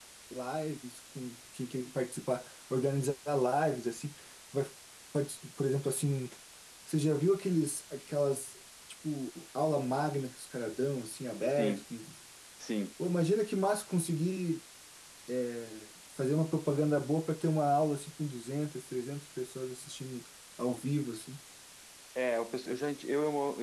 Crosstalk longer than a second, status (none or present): none